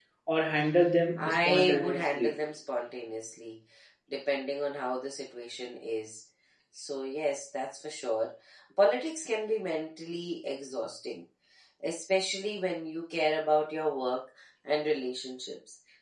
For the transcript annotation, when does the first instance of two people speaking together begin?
1.2 s

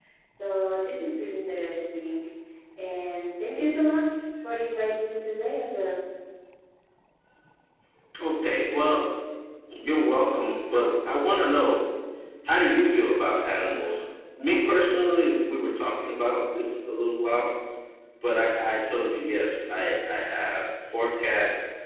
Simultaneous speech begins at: none

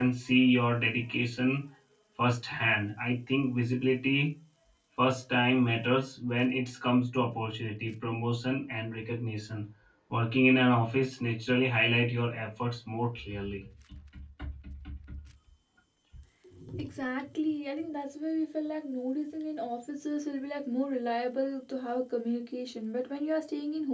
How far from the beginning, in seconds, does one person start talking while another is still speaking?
none

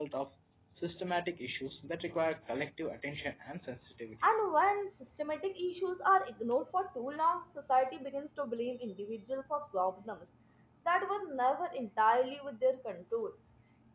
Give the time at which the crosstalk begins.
none

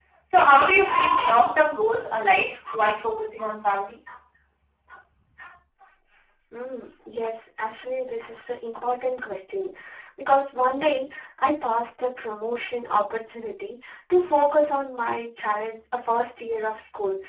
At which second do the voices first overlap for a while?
none

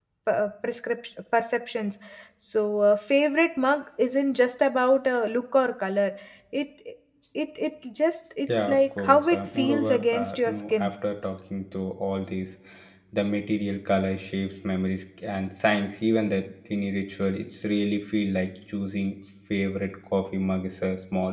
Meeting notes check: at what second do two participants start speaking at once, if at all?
8.5 s

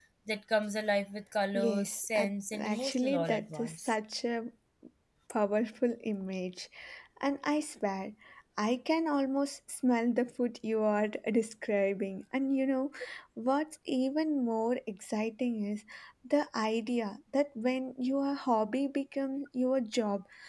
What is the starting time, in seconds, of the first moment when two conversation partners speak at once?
1.5 s

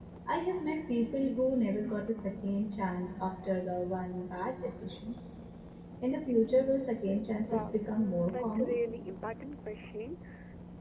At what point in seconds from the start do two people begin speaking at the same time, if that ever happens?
7.4 s

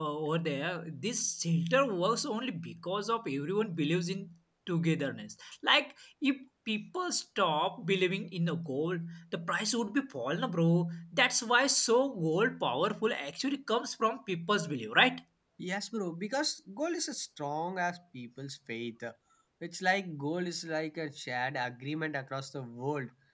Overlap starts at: none

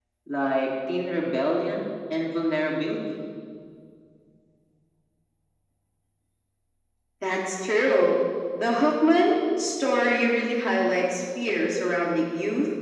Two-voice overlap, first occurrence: none

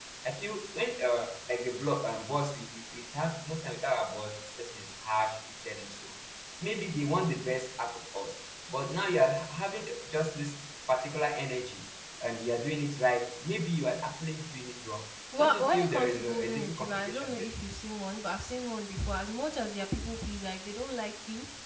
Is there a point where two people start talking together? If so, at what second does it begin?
15.3 s

